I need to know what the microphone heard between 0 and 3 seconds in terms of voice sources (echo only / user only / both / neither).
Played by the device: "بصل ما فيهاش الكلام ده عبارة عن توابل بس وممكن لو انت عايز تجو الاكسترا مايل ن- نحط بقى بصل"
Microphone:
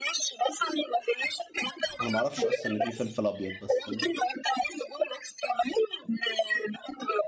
both